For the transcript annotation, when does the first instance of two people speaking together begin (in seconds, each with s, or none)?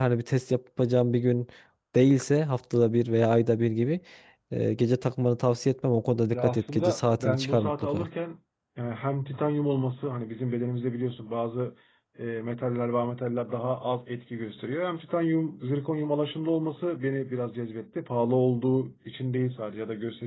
6.3 s